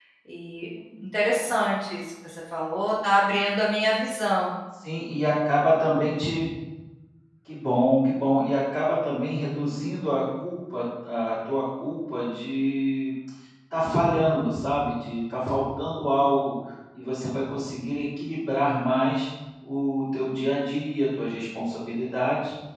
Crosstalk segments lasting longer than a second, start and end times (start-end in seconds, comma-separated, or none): none